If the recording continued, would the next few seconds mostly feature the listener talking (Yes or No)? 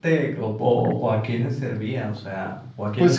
Yes